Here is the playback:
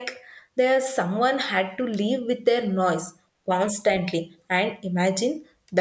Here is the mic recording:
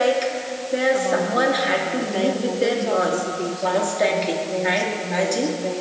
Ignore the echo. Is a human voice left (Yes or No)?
Yes